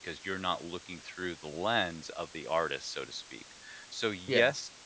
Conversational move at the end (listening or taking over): listening